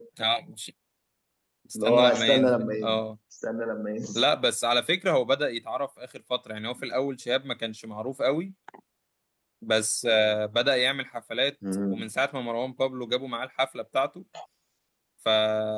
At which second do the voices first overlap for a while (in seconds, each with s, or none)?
1.8 s